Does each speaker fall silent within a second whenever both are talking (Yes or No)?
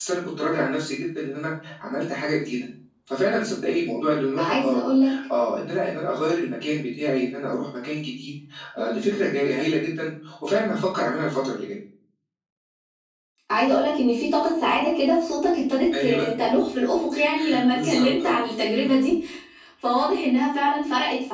No